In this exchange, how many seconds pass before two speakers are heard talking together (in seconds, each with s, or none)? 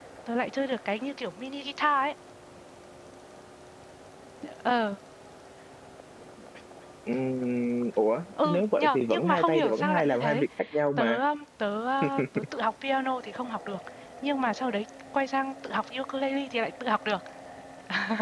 8.4 s